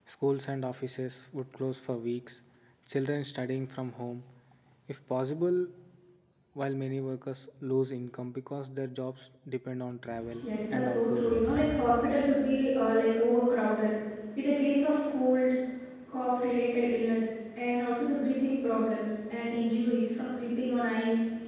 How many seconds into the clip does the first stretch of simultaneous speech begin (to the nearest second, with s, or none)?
10 s